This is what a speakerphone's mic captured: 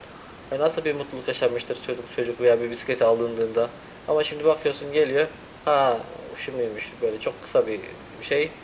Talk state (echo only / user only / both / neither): echo only